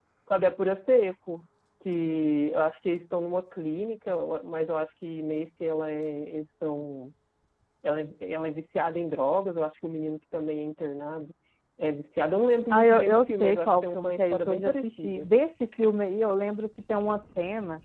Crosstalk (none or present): present